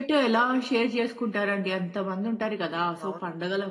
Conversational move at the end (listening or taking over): listening